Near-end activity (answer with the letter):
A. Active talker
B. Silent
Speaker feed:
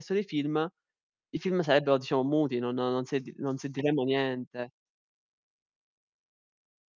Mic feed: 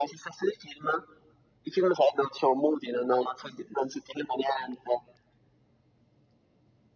B